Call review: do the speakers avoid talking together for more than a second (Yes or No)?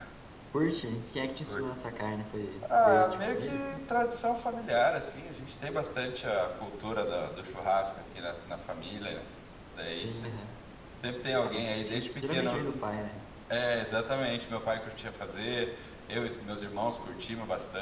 No